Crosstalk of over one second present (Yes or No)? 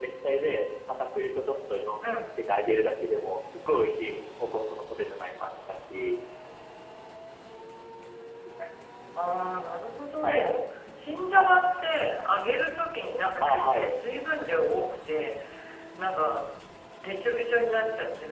No